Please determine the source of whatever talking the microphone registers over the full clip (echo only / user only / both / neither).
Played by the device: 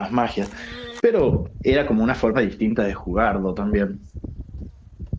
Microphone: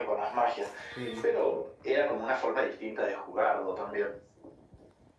both